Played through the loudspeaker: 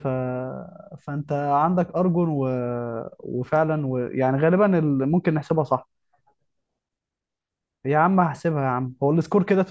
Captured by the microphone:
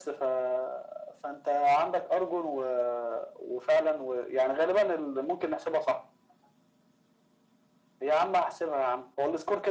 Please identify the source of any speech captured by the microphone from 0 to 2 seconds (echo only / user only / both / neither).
echo only